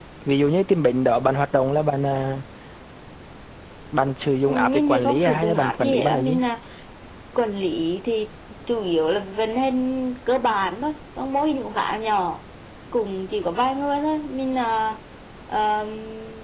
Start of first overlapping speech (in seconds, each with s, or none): 4.5 s